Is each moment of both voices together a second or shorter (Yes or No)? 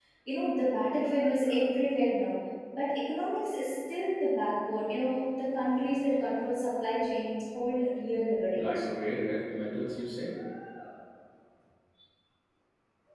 Yes